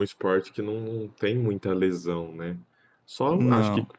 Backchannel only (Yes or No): Yes